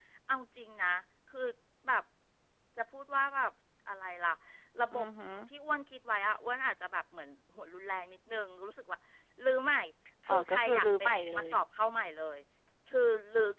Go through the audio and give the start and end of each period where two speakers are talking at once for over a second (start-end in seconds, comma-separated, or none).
10.3-11.5